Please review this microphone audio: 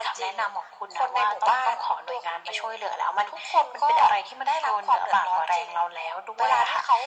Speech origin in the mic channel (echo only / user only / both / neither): echo only